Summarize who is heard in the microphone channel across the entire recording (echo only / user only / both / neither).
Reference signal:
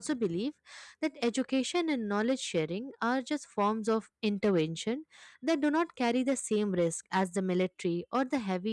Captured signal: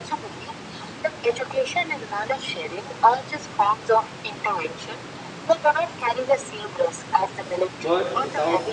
both